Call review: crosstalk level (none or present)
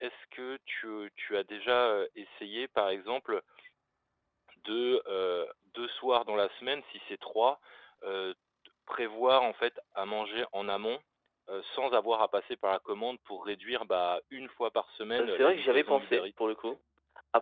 present